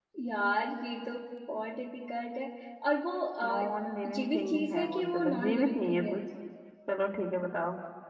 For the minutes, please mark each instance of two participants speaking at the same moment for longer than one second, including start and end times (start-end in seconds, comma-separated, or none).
4.0-6.2